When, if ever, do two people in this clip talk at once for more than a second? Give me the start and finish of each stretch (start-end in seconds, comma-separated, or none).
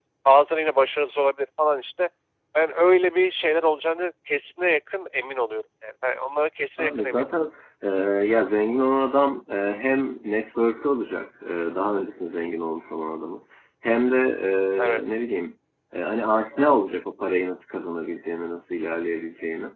none